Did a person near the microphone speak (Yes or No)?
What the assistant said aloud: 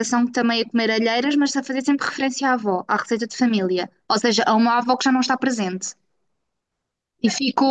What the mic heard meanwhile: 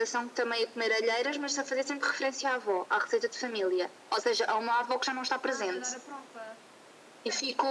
Yes